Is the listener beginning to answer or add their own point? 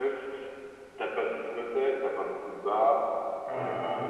No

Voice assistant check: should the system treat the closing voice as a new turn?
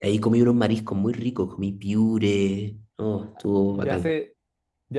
Yes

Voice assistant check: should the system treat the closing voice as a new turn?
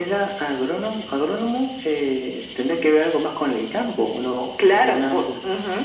Yes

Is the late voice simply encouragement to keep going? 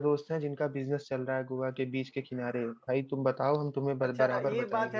No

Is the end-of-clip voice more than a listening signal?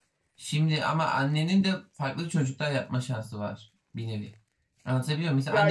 No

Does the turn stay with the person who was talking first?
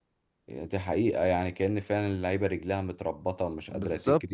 No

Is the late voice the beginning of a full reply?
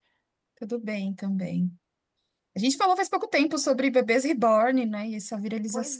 Yes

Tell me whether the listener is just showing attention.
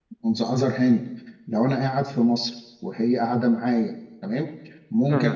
Yes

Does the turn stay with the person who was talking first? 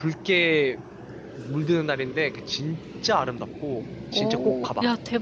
No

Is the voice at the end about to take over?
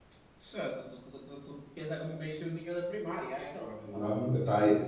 Yes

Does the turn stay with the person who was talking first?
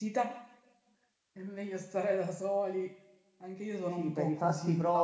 No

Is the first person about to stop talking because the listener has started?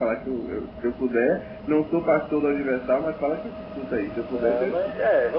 Yes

